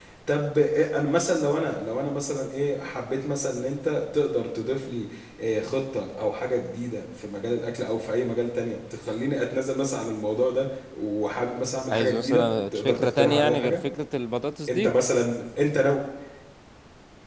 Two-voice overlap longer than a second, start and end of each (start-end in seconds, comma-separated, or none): 11.9-13.8